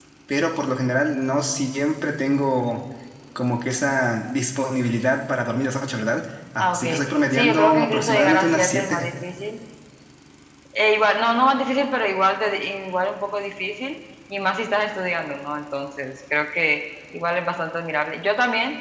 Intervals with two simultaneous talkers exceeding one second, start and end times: 7.3-9.0

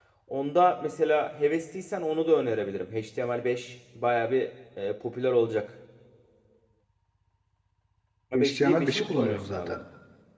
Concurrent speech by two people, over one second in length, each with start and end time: 8.3-9.8

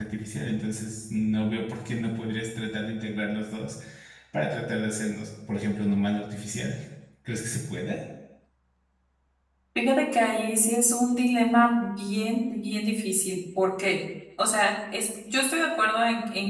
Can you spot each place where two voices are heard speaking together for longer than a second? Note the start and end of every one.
none

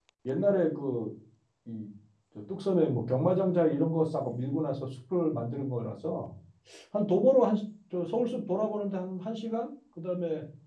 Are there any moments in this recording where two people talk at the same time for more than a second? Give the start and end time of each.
none

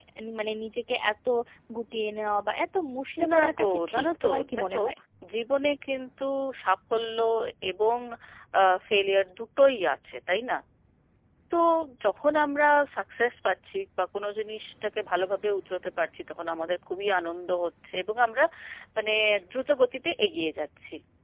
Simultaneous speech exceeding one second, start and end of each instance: 3.3-4.8

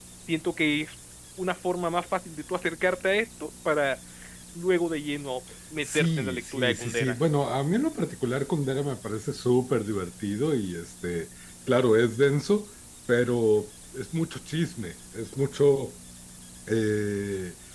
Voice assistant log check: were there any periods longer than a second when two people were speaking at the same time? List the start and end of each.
5.8-7.1

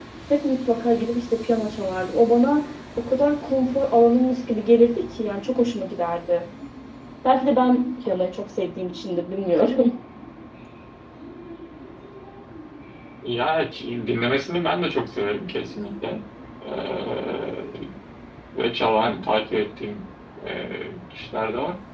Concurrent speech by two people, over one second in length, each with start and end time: none

